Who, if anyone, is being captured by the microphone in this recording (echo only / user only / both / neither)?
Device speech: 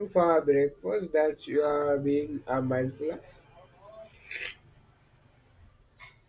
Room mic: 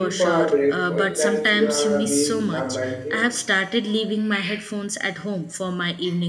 both